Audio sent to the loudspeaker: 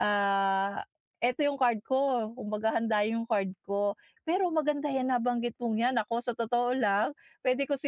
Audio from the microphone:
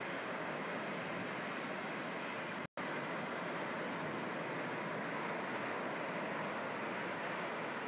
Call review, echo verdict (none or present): none